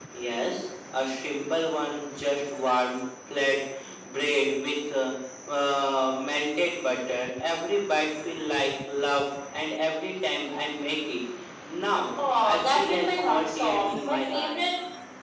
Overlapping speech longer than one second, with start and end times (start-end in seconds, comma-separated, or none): 12.4-14.6